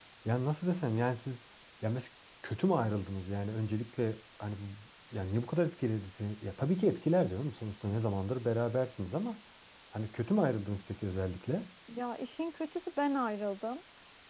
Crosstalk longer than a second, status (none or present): none